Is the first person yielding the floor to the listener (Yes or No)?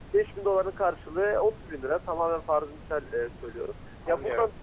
No